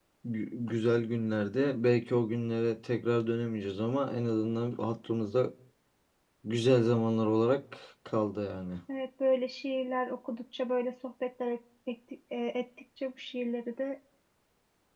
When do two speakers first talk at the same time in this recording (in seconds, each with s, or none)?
none